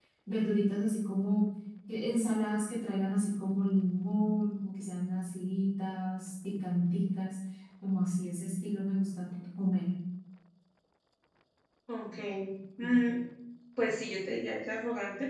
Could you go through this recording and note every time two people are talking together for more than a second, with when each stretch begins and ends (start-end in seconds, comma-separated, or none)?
none